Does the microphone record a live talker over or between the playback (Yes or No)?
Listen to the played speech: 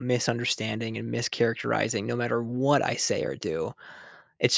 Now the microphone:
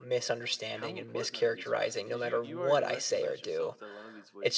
Yes